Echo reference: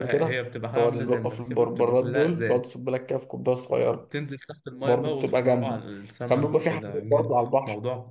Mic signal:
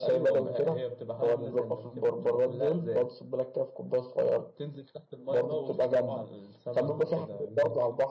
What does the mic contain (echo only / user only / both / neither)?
echo only